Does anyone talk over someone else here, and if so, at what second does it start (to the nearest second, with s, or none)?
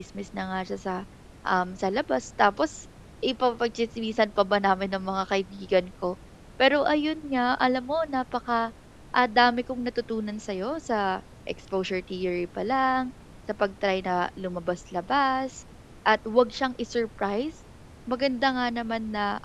none